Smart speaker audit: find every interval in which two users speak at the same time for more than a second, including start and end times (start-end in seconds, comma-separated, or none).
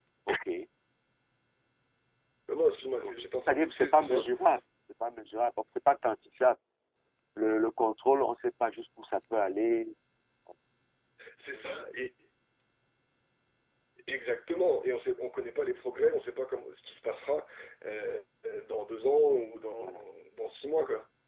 3.0-4.3